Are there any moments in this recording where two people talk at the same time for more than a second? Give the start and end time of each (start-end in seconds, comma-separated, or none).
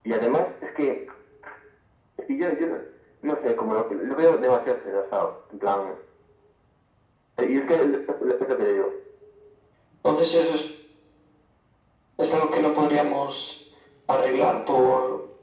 none